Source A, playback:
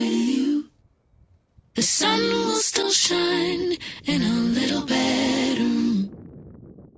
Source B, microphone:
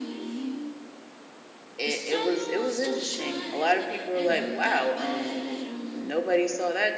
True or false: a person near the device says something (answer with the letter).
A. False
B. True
B